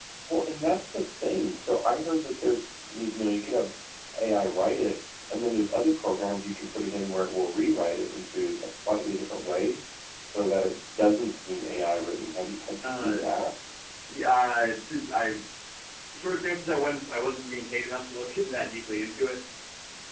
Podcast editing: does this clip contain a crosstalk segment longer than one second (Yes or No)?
No